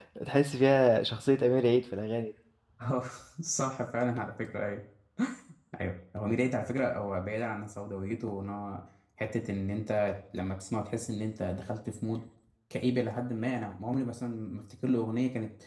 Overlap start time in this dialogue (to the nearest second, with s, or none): none